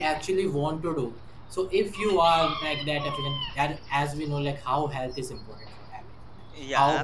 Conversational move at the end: listening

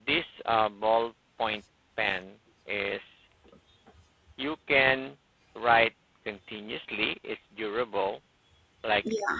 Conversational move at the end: listening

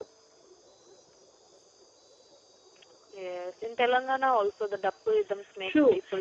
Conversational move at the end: taking over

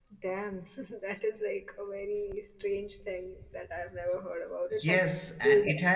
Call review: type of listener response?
taking over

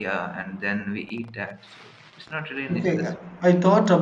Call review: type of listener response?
taking over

